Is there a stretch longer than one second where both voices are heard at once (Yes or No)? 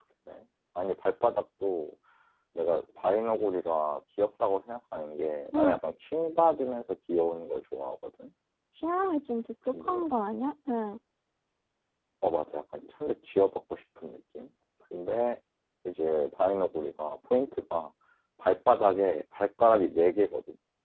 No